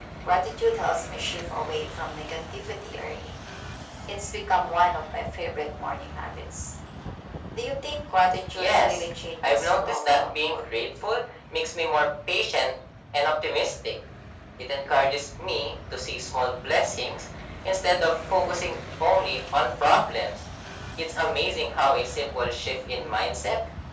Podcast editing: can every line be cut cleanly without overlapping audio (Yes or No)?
No